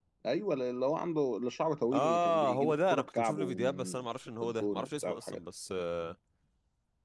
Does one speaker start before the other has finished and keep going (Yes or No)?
Yes